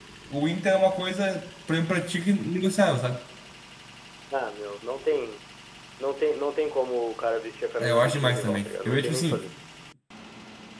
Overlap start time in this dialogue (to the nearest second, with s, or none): 8 s